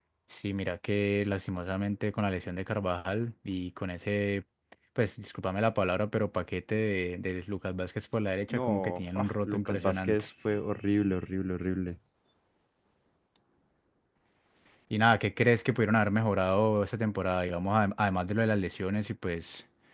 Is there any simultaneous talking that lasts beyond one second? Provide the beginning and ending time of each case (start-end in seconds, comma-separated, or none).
8.5-10.2